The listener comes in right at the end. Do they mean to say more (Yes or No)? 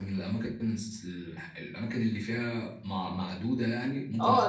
Yes